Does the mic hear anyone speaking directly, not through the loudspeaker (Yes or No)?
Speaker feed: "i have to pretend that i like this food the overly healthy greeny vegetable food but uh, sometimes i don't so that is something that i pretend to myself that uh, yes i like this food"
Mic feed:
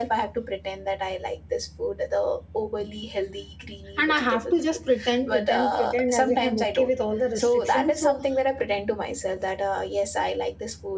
Yes